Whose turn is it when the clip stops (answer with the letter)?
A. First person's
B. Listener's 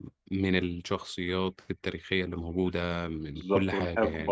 B